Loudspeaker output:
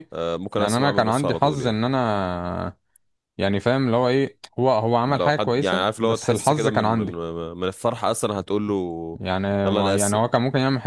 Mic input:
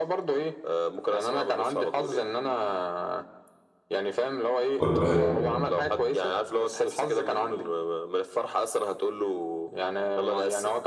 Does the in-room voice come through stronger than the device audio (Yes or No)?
Yes